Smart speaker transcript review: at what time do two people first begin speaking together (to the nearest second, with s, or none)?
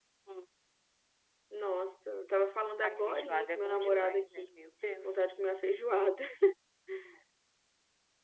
3 s